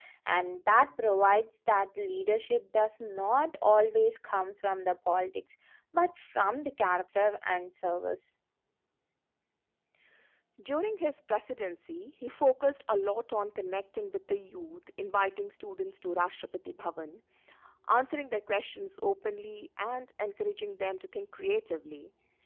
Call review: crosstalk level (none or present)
none